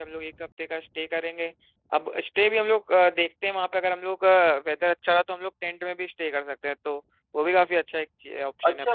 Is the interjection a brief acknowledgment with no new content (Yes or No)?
No